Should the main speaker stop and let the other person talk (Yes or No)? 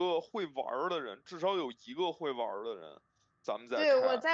Yes